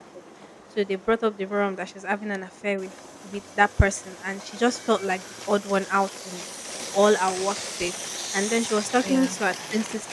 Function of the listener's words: listening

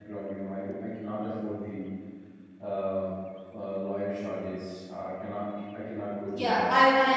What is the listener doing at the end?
taking over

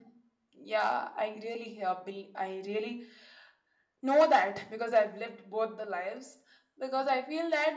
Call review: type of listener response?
listening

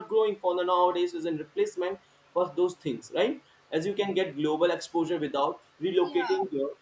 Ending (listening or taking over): listening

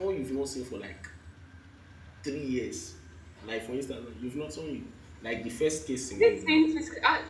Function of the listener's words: taking over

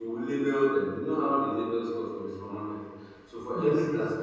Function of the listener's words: listening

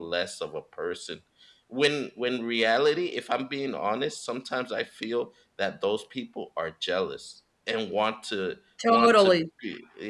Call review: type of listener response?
listening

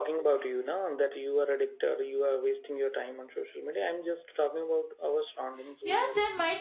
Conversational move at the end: taking over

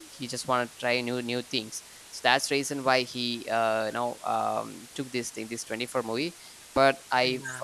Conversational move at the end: listening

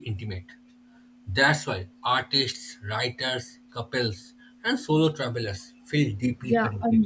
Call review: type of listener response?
taking over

